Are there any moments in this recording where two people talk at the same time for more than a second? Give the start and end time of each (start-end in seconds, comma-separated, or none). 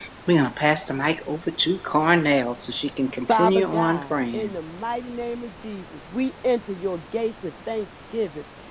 3.3-4.5